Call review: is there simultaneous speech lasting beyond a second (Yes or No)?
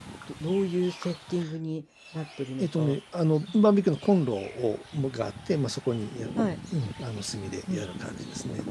No